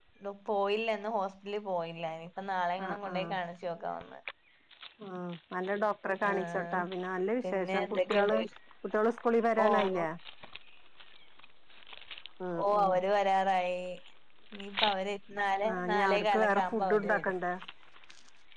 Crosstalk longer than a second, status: present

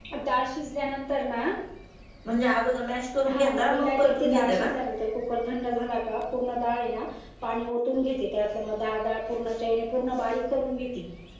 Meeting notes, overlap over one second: present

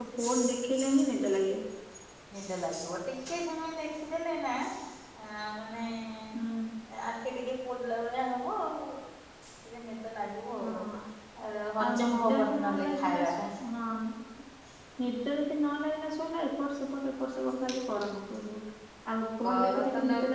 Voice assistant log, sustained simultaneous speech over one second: present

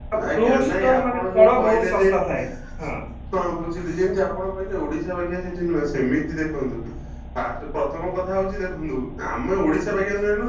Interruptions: present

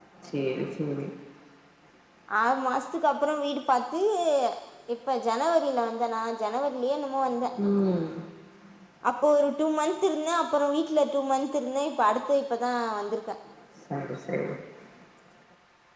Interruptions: none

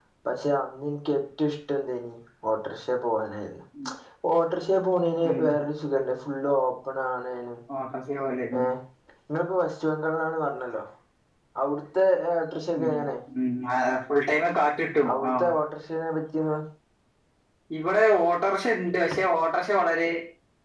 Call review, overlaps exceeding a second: none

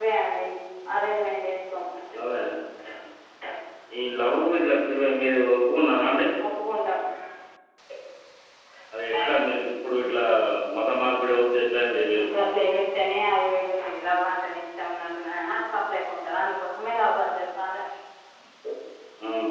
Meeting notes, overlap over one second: none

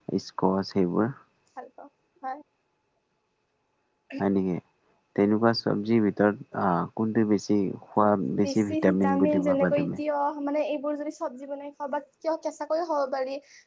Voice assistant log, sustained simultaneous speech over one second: present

